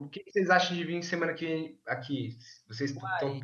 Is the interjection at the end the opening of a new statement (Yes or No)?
Yes